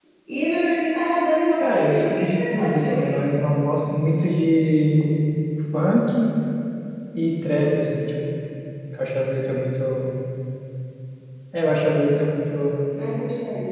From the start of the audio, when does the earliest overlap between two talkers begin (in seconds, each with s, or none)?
1.6 s